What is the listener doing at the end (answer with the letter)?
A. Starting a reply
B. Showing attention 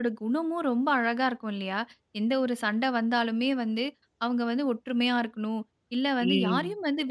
B